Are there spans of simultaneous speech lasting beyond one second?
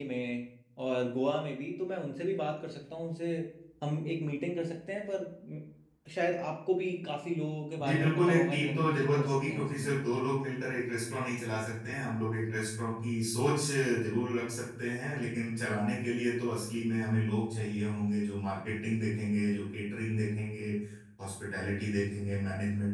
Yes, from 7.8 s

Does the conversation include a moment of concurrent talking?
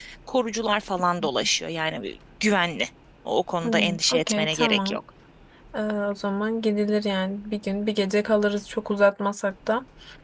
Yes, from 3.6 s

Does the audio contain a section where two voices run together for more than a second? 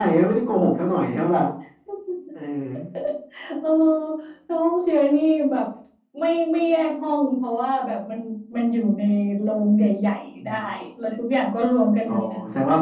No

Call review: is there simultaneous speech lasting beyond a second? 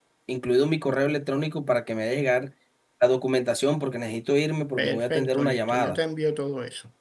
Yes, from 4.8 s

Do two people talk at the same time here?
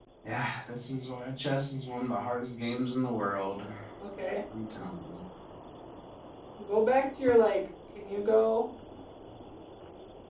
No

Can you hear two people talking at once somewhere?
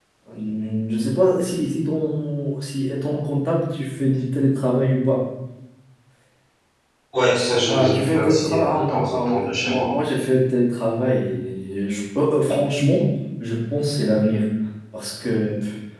Yes, from 7.7 s

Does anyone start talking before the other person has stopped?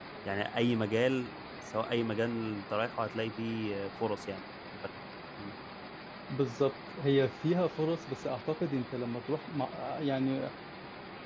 No

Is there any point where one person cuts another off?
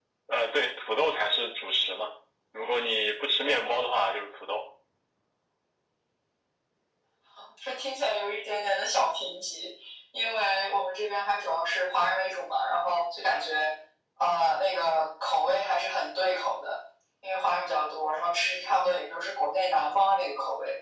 No

